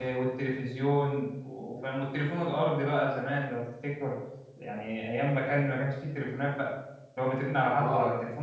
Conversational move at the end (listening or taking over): listening